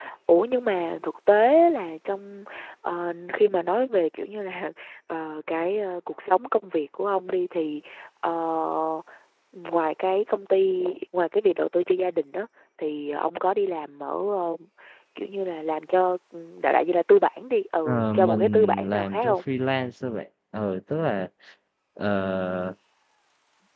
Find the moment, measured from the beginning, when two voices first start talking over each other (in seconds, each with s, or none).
17.9 s